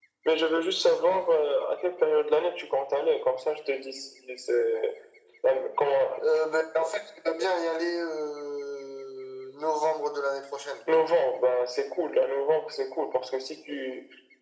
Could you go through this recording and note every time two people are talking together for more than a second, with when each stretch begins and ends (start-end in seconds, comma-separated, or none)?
none